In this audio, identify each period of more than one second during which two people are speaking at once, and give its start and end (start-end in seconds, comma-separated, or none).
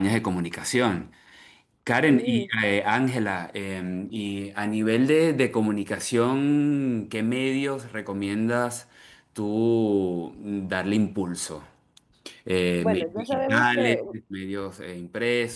12.8-14.0